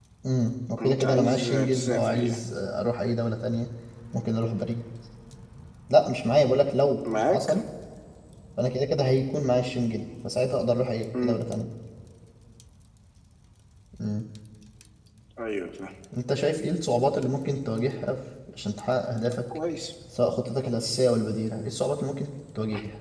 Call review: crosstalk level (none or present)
present